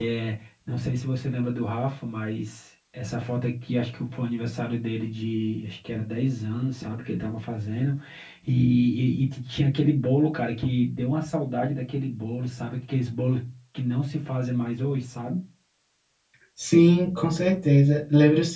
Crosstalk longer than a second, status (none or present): none